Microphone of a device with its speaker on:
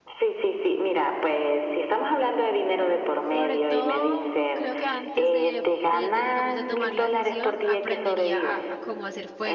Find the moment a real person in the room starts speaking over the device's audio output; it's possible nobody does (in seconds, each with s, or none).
3.3 s